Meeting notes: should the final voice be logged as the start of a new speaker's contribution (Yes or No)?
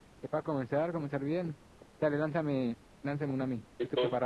Yes